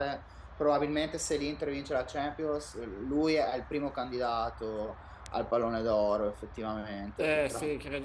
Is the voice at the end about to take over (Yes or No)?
Yes